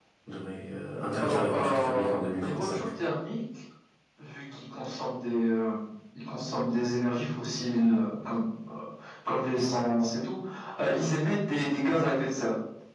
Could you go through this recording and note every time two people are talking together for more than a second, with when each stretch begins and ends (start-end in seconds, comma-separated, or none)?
1.2-2.8